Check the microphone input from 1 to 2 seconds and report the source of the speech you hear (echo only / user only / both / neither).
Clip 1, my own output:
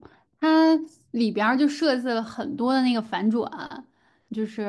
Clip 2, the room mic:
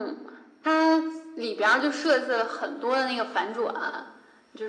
echo only